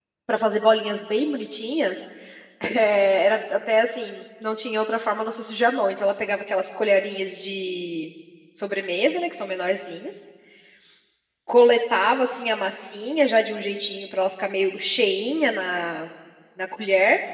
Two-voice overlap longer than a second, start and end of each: none

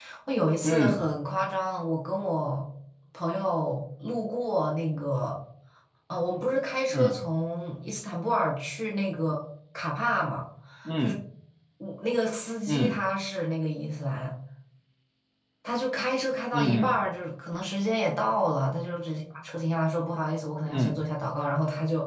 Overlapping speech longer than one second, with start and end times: none

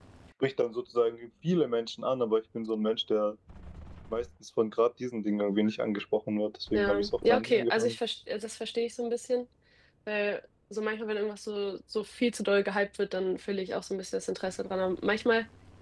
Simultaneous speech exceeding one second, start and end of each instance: 6.7-8.0

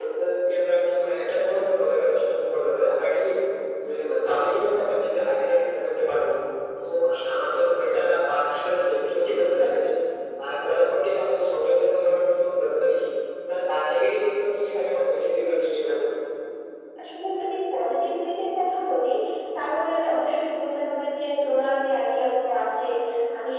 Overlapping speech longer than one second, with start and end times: none

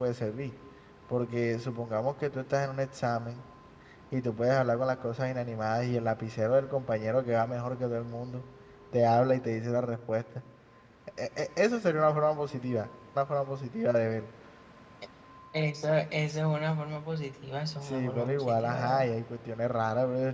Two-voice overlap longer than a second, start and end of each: 17.8-19.1

